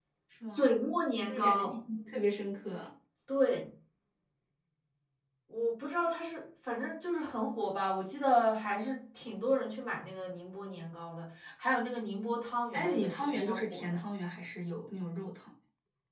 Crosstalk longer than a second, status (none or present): present